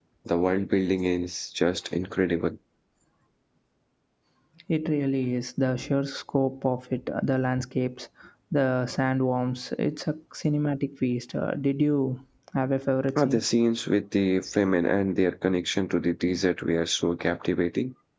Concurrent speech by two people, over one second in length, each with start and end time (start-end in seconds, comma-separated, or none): none